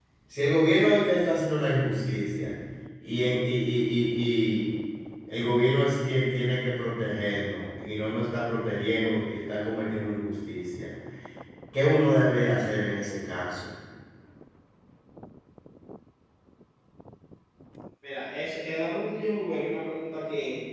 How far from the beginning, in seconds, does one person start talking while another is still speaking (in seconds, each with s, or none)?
none